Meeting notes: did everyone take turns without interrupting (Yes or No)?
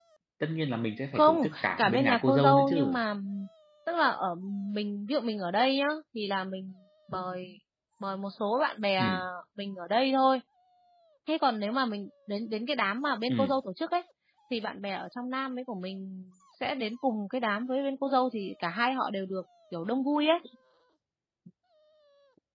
No